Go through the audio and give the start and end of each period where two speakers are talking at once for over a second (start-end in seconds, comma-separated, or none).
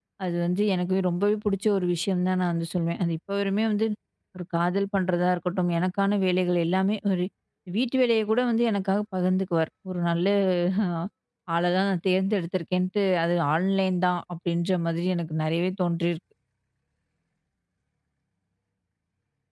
none